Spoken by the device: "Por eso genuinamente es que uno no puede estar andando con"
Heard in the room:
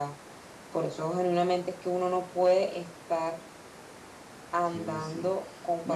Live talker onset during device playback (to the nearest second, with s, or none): 5 s